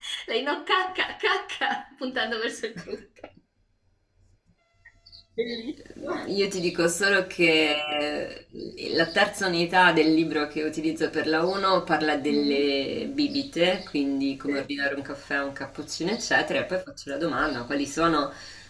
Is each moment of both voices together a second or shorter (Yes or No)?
Yes